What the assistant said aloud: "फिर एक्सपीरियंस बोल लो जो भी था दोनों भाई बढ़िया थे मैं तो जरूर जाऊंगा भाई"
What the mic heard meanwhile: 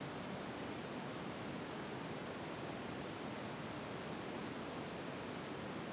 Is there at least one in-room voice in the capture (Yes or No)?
No